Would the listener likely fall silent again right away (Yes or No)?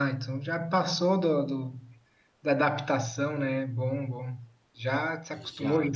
Yes